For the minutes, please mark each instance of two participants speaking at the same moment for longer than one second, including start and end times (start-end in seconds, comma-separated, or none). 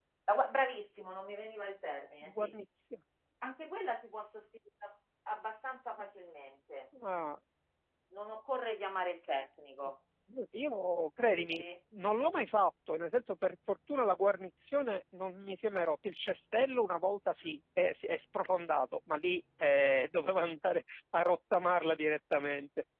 none